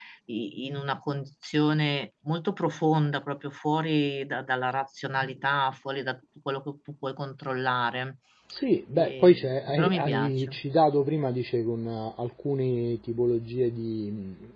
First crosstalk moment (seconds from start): 8.9 s

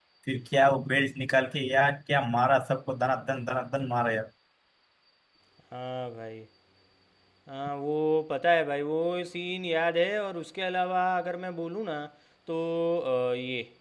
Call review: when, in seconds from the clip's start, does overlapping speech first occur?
none

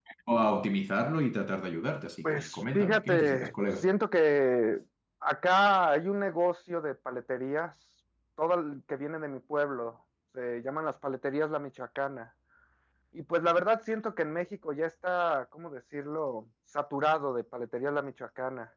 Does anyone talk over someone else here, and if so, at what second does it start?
2.2 s

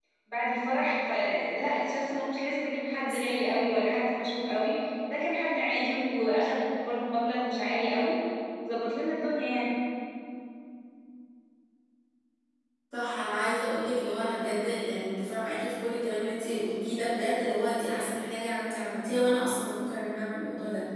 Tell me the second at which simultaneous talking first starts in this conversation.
none

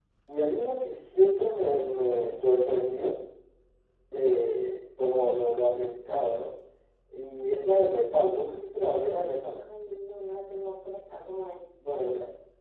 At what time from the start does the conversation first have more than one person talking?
none

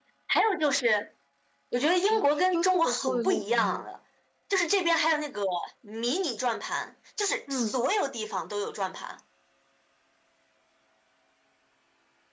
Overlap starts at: 1.9 s

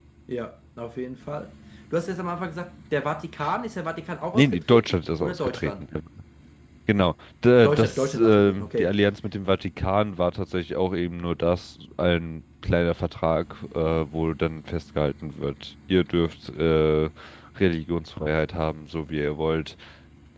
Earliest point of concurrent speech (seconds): 4.3 s

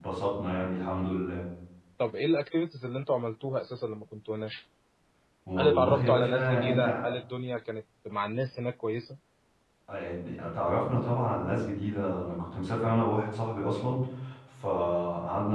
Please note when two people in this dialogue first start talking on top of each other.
5.6 s

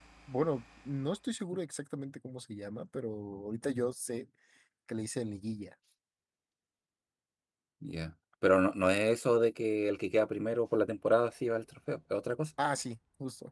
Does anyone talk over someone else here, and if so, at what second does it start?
none

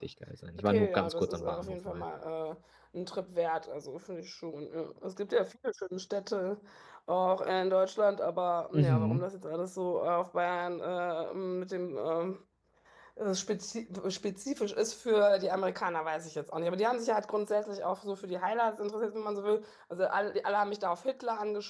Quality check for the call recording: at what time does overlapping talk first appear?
0.6 s

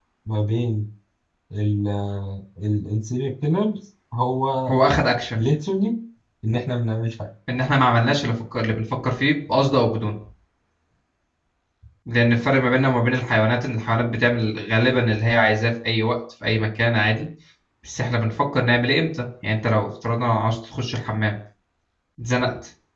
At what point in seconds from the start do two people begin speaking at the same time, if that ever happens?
none

